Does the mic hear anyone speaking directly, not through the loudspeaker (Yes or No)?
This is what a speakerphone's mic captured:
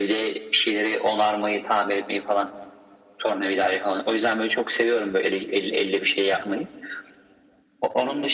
No